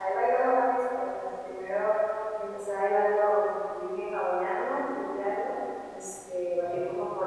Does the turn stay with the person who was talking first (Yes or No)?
Yes